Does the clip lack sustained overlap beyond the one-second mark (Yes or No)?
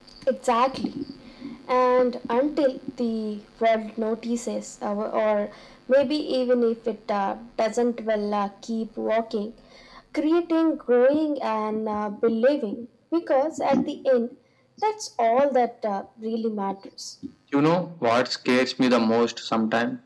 Yes